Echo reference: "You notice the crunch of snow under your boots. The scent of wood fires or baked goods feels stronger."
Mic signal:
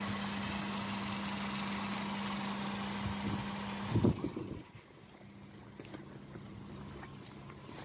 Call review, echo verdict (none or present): none